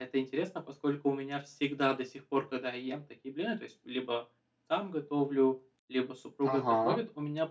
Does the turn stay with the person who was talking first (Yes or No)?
Yes